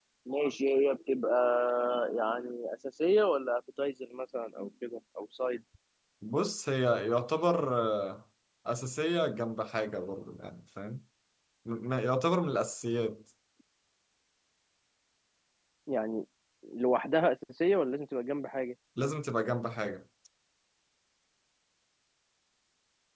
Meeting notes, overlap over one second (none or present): none